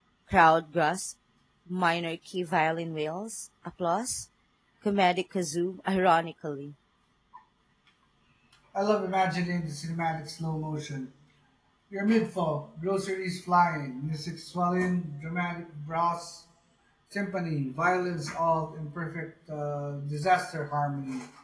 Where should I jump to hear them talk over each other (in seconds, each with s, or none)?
none